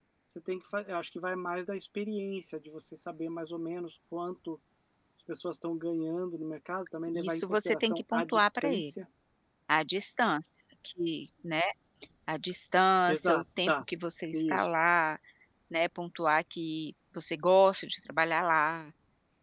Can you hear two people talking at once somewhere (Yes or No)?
Yes